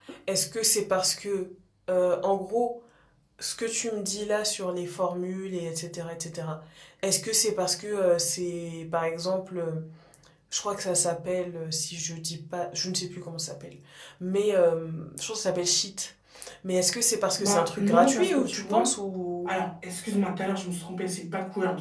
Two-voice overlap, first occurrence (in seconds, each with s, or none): 17.4 s